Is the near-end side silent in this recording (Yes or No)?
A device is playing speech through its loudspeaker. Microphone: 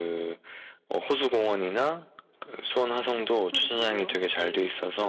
No